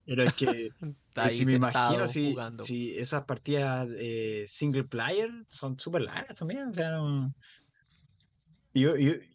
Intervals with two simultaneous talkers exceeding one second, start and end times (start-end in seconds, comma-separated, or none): 1.2-2.7